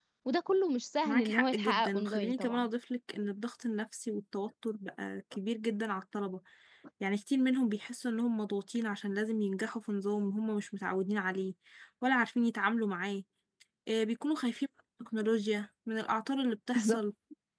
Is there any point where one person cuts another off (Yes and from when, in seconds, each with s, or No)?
Yes, from 1.1 s